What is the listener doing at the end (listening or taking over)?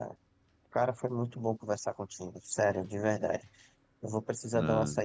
listening